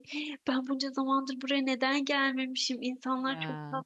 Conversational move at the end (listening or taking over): listening